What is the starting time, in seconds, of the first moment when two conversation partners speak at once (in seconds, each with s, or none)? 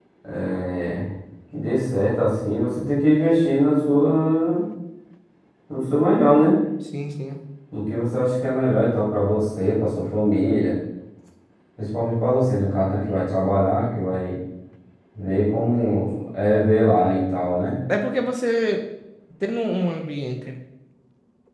none